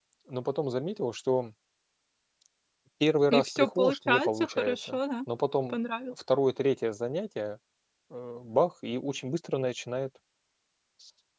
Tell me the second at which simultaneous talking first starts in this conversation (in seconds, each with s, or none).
3.3 s